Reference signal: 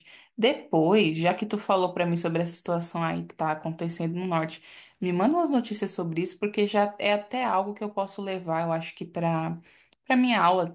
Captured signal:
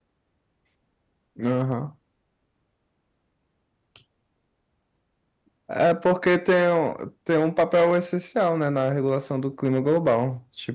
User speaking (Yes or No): Yes